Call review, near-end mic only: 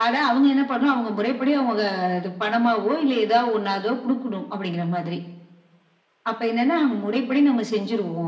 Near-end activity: none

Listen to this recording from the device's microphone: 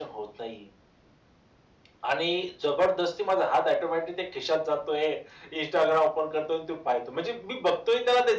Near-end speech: none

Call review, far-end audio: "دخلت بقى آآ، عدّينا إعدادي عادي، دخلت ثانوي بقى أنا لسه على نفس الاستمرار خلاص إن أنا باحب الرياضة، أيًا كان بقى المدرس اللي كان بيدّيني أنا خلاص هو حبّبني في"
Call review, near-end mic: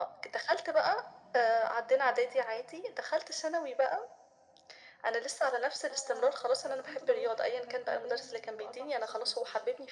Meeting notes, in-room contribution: present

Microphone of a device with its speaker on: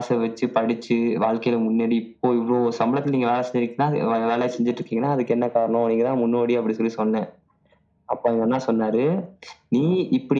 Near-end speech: none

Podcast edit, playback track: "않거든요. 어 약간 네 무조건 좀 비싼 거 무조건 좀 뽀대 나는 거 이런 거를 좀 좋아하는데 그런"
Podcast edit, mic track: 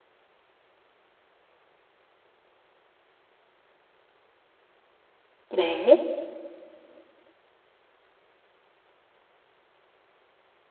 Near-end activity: present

